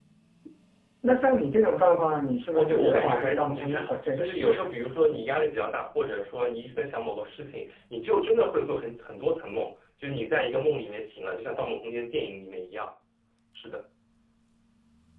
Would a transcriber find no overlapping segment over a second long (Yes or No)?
No